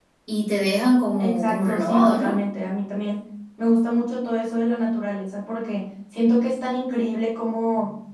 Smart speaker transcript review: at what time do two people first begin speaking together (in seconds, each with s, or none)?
1.2 s